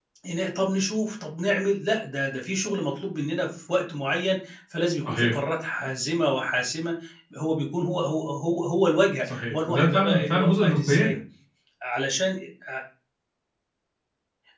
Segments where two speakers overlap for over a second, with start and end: 9.2-11.2

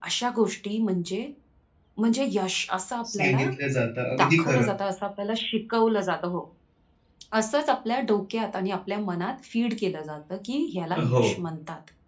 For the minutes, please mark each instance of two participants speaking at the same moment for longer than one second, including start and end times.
none

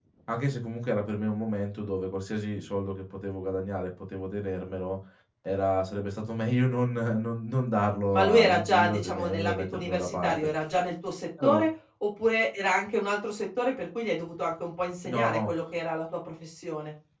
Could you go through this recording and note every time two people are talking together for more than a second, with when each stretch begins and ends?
8.1-10.5

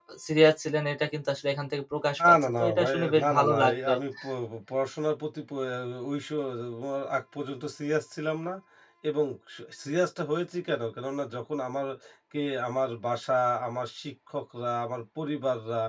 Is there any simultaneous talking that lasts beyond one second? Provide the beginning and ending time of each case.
2.2-3.9

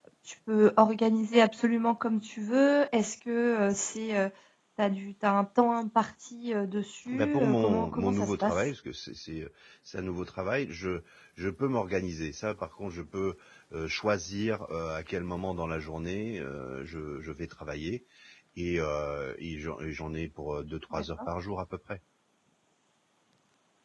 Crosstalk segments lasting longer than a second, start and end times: 7.1-8.7

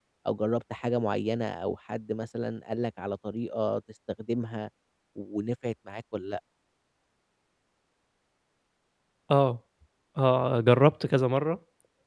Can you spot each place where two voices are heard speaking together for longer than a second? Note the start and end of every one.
none

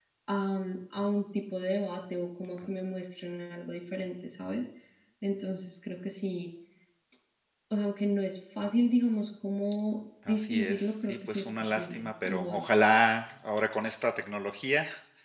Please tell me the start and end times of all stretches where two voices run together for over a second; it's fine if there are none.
10.3-12.6

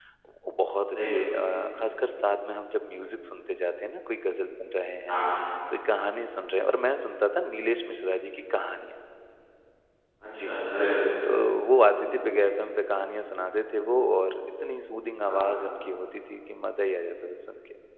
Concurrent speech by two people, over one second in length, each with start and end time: none

